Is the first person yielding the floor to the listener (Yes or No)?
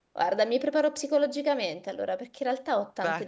No